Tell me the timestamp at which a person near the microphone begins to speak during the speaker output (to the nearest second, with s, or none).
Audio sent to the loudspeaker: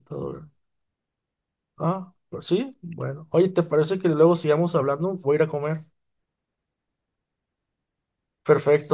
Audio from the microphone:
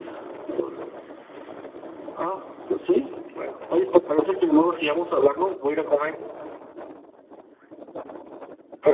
none